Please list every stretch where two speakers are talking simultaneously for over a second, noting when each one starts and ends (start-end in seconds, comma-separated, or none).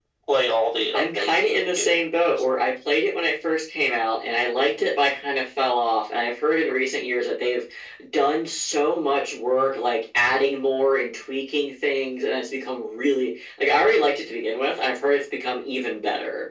0.9-2.9